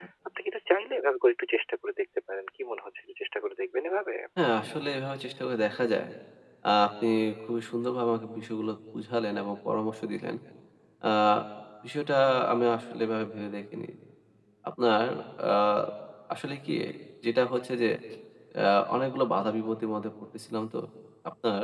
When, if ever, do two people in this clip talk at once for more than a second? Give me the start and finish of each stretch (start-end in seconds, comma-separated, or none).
none